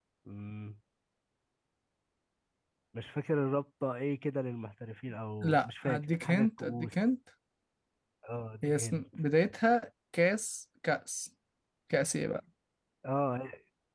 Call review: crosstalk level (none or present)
present